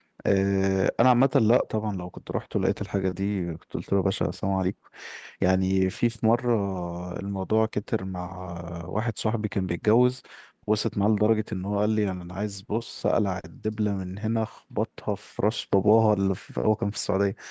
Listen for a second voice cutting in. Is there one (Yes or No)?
No